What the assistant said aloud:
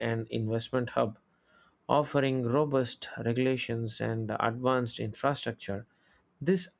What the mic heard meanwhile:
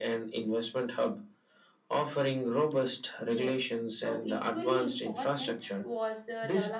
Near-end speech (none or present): present